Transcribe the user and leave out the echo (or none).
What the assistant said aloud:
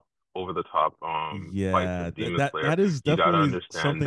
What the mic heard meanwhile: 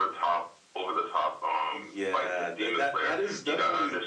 none